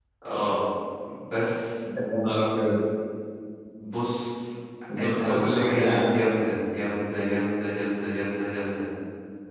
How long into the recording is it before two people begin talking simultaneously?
5 s

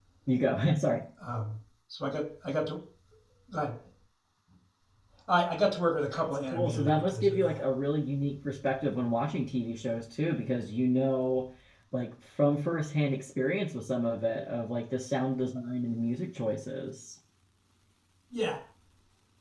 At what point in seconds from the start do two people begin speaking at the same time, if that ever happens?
6 s

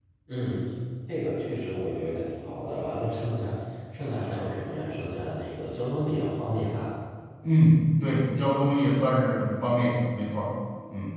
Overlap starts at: none

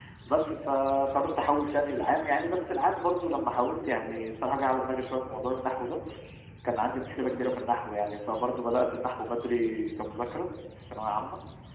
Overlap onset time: none

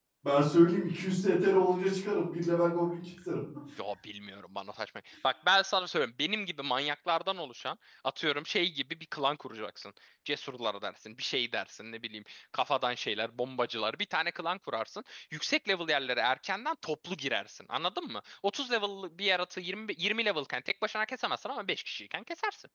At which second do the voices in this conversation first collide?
none

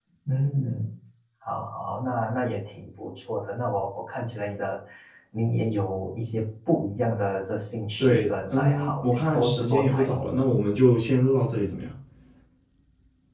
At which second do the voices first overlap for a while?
8 s

